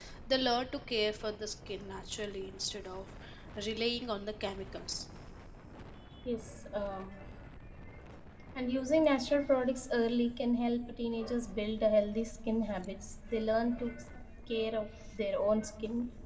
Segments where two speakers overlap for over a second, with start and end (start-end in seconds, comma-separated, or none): none